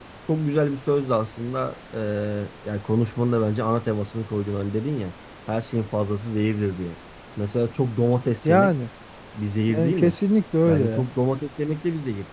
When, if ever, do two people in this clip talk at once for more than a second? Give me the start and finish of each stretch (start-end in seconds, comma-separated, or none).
none